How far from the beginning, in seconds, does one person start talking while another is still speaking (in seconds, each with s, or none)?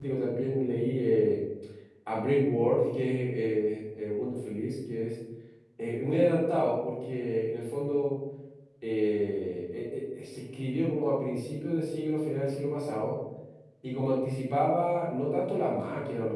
none